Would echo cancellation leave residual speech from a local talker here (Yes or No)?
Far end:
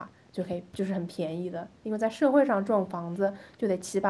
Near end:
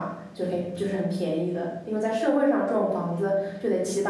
No